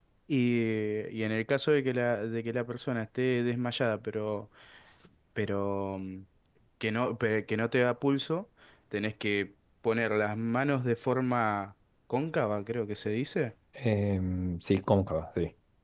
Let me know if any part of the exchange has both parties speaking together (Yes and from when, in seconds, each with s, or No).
No